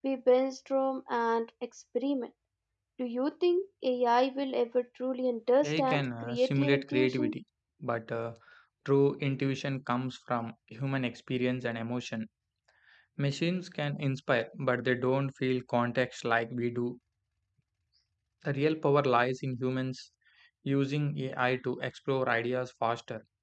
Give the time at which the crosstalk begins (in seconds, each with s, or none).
5.6 s